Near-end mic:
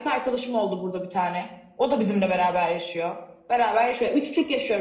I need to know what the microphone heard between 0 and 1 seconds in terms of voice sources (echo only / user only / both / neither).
echo only